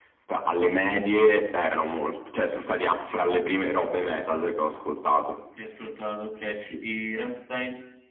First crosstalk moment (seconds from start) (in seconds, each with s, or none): none